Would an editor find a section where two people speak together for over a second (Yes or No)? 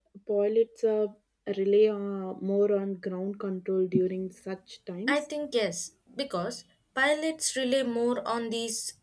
No